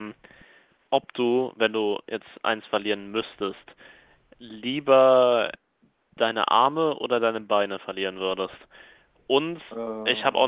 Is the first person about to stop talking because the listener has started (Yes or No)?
No